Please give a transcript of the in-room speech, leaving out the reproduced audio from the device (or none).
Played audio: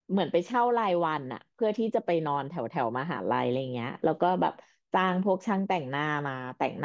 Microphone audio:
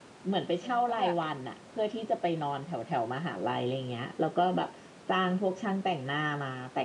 ฉันก็แบบไป